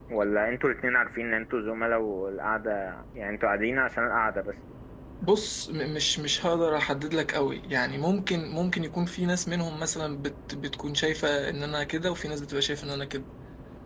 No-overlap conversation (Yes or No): Yes